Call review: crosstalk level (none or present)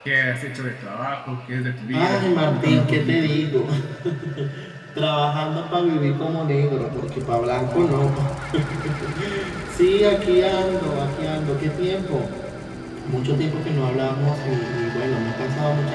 present